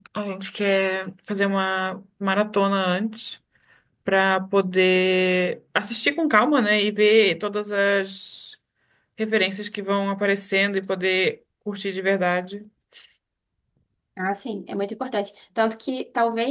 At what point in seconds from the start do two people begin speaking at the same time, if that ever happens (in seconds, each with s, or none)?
none